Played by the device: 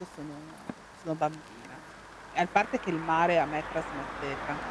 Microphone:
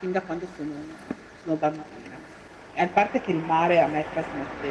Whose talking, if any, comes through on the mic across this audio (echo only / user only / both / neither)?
echo only